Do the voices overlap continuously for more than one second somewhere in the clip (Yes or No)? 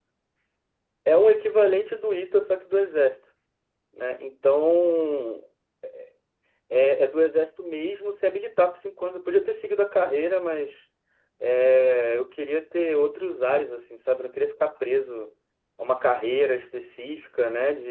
No